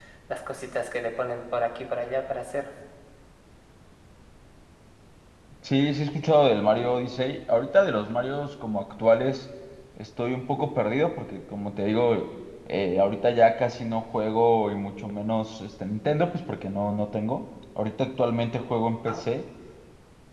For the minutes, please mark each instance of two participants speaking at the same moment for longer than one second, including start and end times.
none

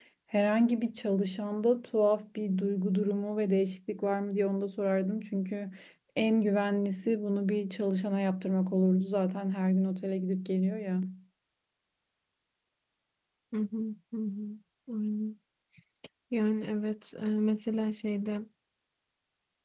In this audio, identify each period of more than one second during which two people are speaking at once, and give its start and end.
none

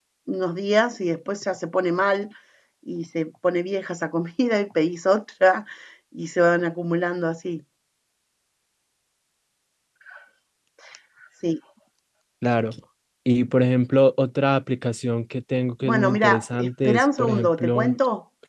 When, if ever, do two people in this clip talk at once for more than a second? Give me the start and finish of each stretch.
15.8-17.9

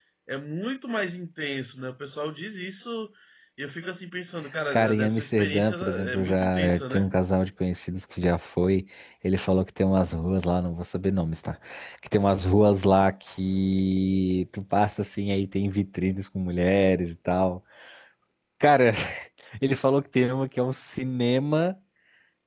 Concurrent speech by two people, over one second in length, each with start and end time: 4.7-7.1

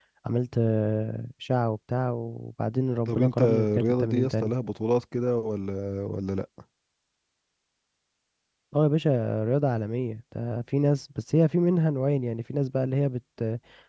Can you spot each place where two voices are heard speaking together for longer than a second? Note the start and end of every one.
3.1-4.5

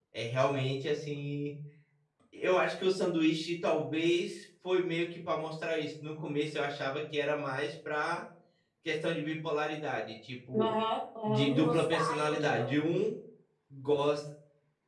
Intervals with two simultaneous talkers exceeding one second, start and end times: 11.2-12.7

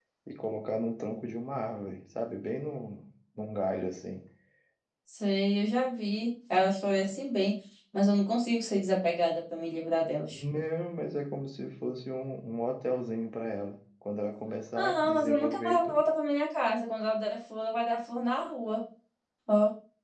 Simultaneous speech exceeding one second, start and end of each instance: 14.8-16.0

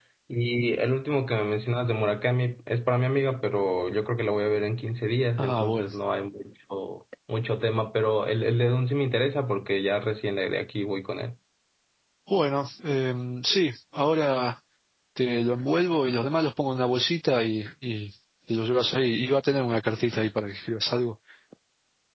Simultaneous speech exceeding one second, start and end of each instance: none

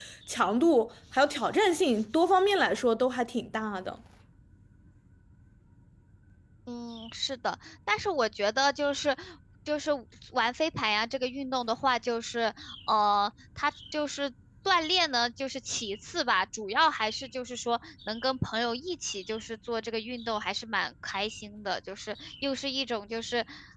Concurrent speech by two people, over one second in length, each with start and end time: none

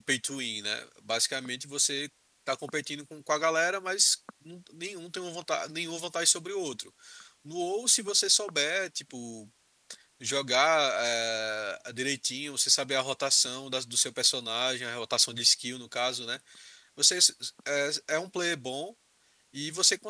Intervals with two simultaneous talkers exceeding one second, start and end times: none

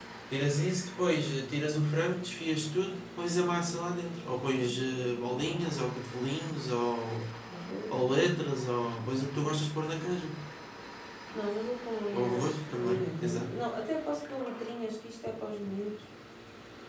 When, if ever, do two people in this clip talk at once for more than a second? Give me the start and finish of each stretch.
12.1-13.6

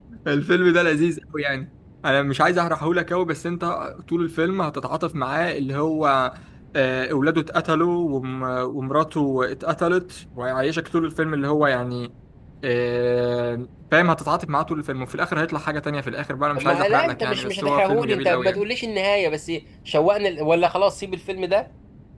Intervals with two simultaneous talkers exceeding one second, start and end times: 16.6-18.6

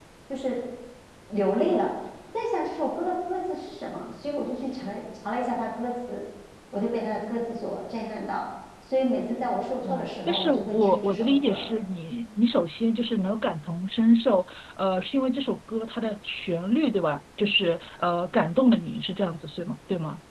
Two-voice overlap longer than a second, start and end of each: 9.9-11.7

